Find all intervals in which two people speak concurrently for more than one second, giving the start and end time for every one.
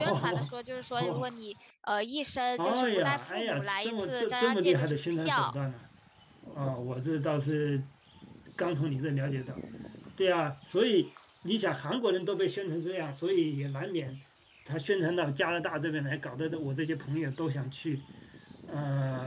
2.6-5.5

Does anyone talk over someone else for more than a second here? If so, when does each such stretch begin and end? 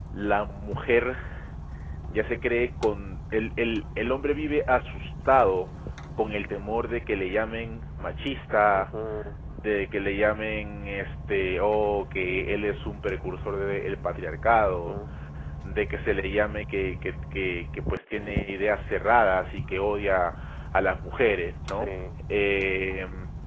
none

